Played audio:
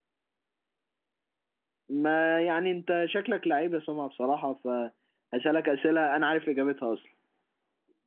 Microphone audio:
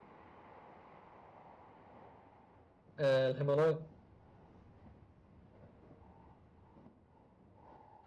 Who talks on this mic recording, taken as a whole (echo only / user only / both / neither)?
user only